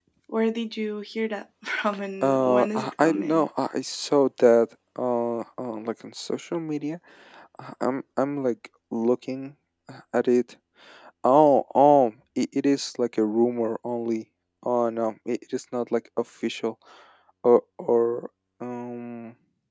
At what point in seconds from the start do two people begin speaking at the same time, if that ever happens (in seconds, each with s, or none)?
2.2 s